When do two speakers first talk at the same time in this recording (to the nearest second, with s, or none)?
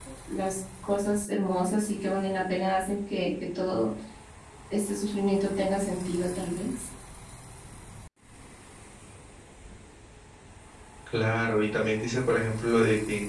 none